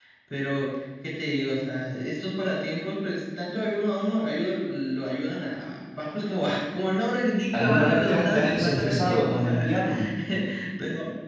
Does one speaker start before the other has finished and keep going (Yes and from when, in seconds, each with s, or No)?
Yes, from 7.5 s